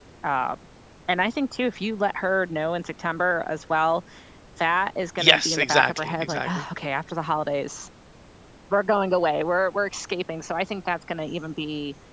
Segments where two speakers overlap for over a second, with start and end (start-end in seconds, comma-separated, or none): 5.2-6.6